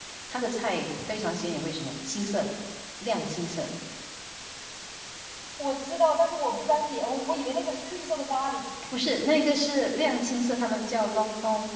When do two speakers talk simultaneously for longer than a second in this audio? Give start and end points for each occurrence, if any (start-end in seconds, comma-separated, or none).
none